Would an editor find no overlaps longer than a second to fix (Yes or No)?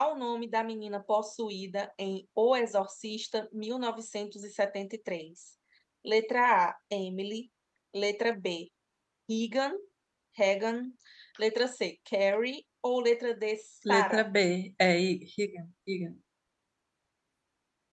Yes